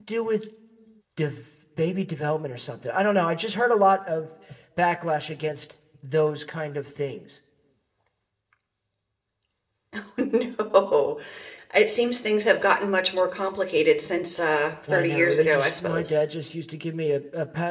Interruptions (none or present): present